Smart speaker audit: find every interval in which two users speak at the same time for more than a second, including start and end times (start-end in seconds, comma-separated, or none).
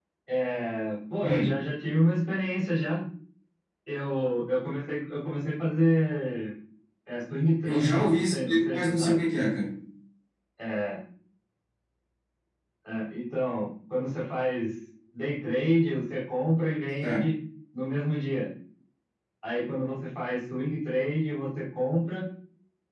7.6-9.3